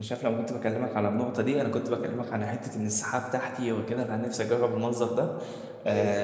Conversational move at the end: listening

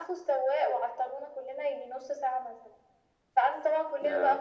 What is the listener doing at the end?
listening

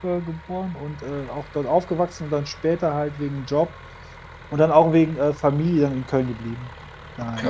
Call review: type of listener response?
taking over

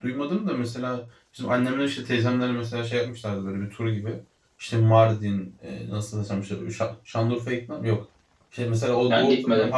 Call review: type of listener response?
listening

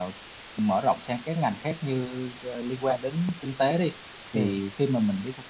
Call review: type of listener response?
listening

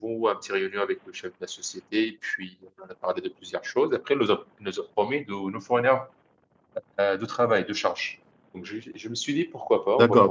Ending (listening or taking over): taking over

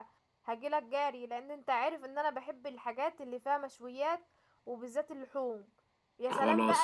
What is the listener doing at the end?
listening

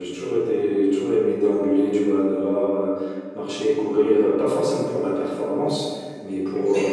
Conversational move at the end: listening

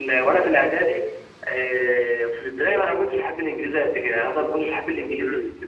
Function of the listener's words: taking over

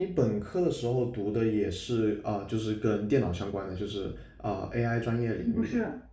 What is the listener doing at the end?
taking over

